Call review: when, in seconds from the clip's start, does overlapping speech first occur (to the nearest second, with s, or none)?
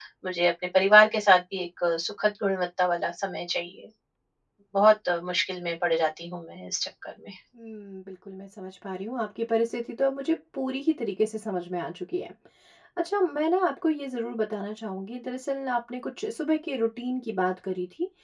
none